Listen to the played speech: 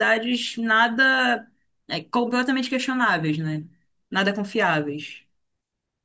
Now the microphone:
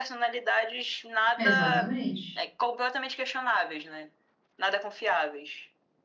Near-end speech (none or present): present